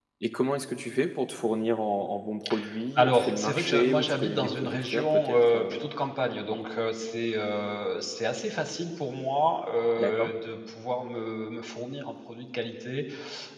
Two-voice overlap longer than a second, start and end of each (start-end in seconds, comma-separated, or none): 3.0-5.8